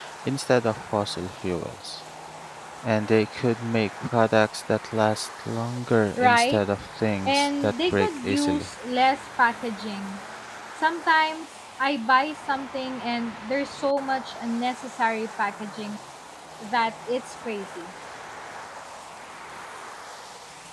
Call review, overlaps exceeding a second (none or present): present